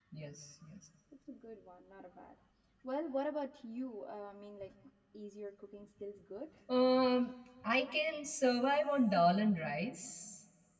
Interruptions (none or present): none